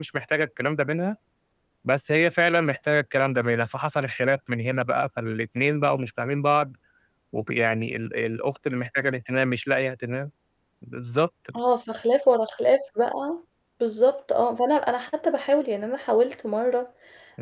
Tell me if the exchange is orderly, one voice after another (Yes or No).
Yes